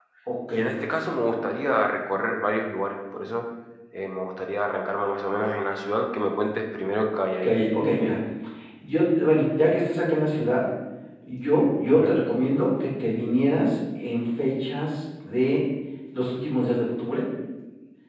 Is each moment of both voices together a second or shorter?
Yes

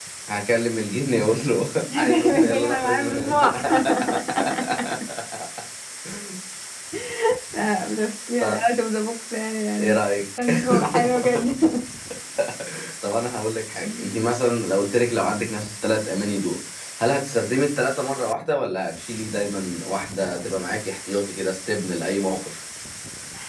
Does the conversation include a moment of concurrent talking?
Yes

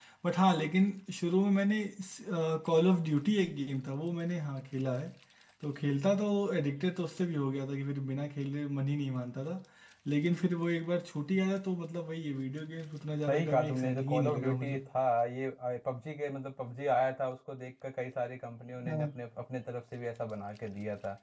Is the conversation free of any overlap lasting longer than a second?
No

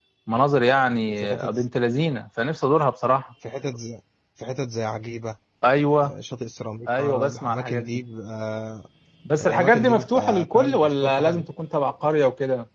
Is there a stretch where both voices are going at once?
Yes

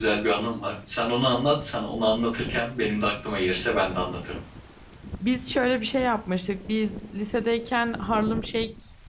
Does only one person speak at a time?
Yes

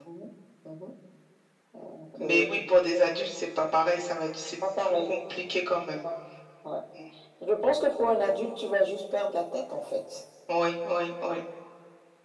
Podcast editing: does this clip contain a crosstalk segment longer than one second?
No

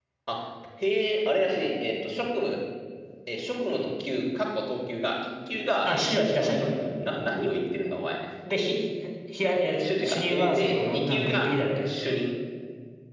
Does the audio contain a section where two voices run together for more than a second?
Yes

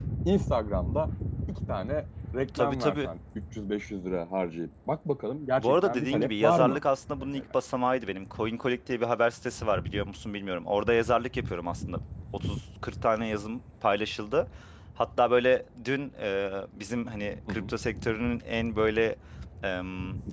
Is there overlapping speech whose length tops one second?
Yes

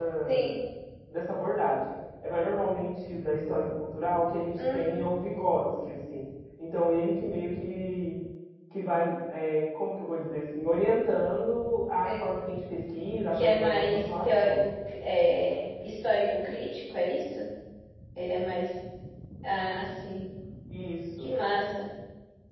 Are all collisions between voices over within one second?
No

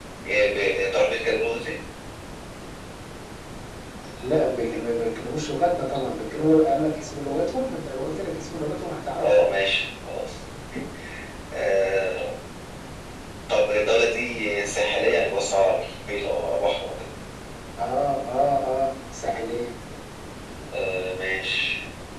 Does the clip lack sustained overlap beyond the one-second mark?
Yes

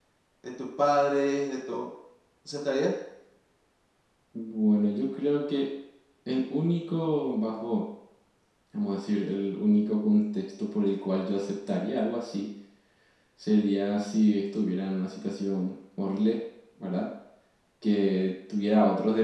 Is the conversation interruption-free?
Yes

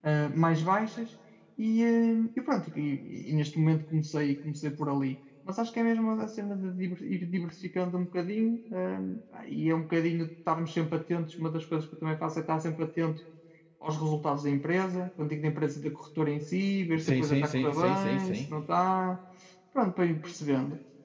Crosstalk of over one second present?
Yes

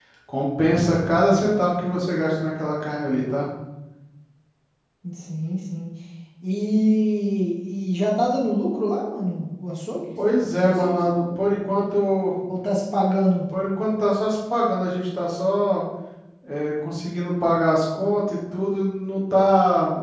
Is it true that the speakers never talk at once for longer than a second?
Yes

